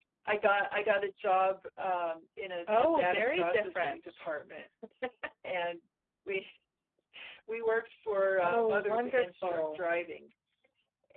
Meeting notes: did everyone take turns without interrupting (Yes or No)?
No